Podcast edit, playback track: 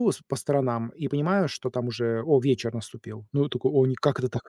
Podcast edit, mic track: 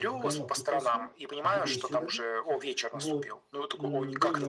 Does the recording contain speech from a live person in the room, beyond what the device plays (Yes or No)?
Yes